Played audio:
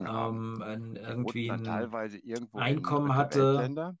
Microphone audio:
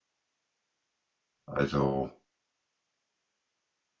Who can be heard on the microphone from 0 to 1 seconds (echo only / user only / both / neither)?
neither